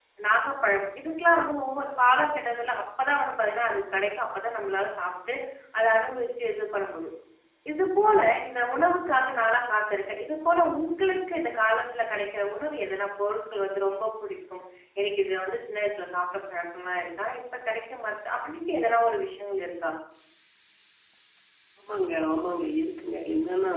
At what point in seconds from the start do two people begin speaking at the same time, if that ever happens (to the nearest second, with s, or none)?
none